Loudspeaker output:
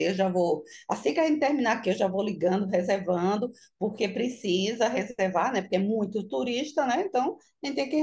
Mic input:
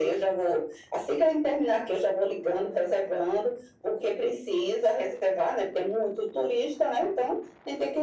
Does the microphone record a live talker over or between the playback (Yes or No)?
No